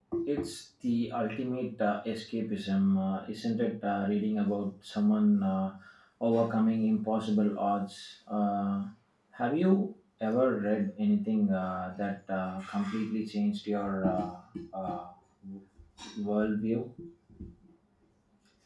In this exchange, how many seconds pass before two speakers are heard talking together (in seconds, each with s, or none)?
none